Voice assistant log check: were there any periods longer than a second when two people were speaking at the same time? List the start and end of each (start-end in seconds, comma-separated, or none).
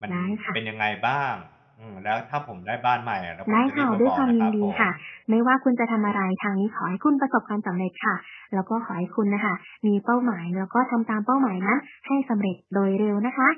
3.5-4.8